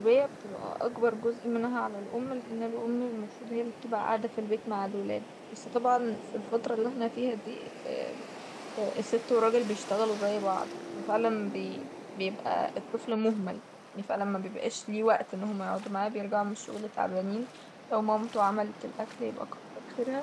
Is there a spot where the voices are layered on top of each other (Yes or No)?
No